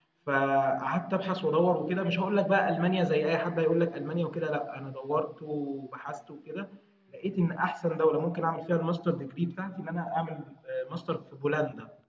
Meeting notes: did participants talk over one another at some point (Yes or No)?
No